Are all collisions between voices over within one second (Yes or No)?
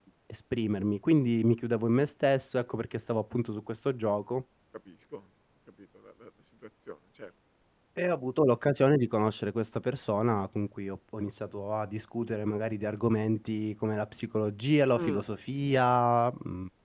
Yes